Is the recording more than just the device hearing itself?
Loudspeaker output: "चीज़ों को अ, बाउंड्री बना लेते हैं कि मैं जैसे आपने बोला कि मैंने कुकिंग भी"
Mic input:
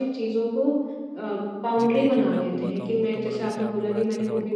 Yes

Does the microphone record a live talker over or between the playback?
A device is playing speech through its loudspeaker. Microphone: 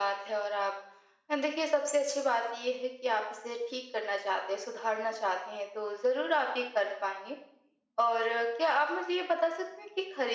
No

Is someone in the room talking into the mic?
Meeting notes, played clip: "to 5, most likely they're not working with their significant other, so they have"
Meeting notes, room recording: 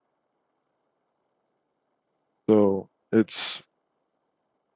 Yes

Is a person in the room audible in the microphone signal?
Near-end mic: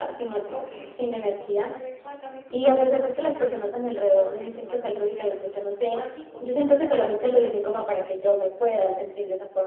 Yes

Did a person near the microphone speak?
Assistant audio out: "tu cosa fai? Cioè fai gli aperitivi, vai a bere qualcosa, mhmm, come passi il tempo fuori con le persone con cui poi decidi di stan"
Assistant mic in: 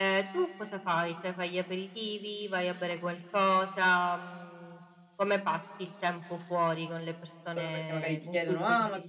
Yes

